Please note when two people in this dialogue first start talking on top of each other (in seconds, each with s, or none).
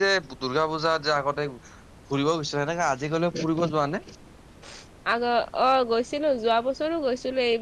none